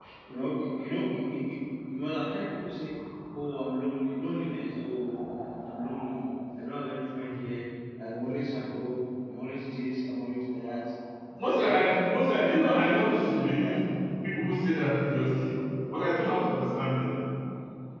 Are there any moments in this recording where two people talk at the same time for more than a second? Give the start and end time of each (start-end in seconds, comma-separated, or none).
12.5-13.8